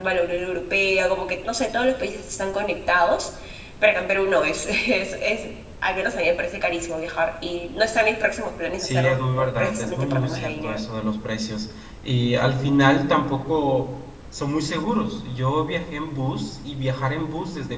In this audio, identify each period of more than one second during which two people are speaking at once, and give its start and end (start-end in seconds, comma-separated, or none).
8.8-10.8